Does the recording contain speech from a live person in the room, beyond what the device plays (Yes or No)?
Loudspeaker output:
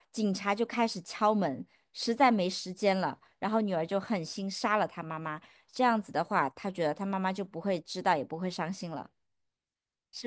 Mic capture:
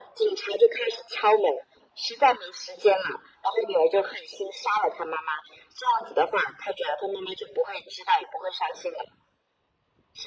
No